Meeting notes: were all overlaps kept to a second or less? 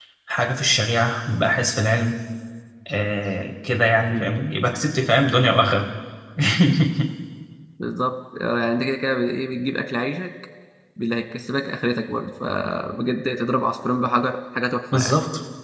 Yes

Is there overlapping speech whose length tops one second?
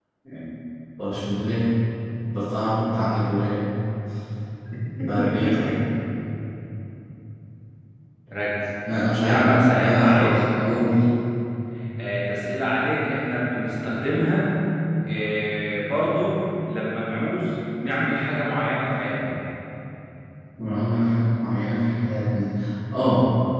Yes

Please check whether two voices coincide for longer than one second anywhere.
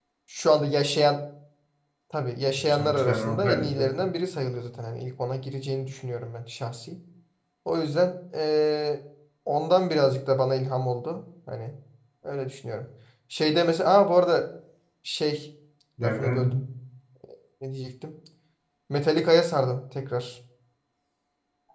Yes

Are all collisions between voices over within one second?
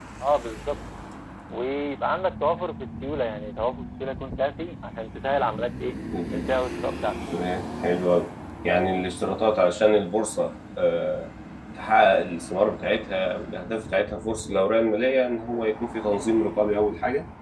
Yes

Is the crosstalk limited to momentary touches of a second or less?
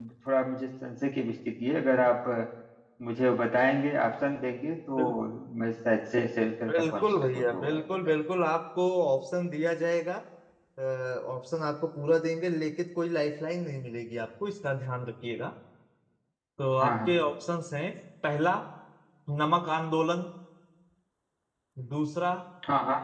No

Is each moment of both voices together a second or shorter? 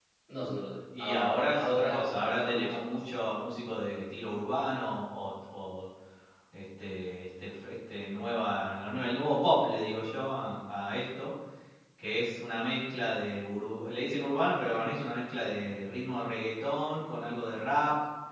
No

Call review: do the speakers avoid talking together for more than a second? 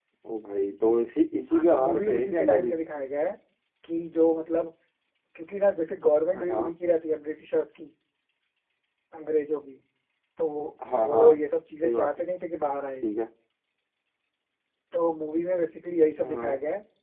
No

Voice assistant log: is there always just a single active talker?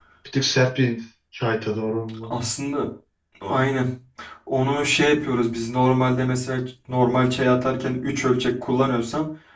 Yes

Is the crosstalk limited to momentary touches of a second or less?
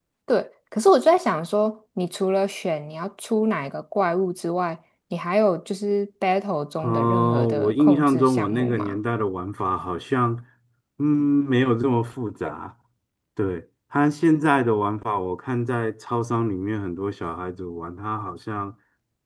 No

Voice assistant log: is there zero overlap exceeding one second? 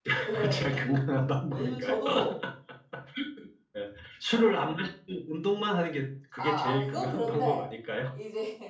No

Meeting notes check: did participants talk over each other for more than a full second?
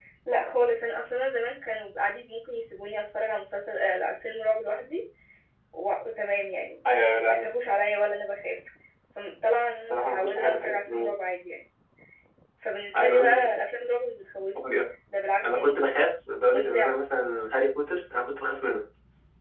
Yes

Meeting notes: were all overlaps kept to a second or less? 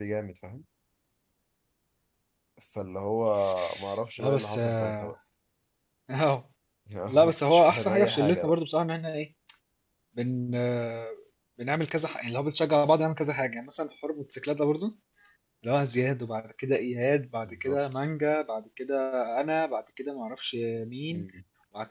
No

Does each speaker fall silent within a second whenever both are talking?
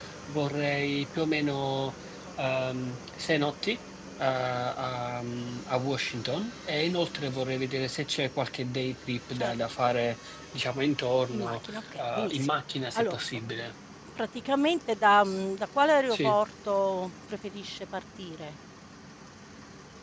No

